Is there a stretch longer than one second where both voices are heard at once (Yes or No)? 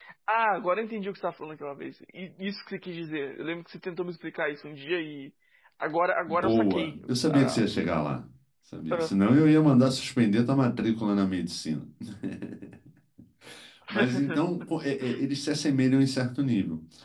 Yes